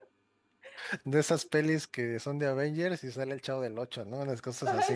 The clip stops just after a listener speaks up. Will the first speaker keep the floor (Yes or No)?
No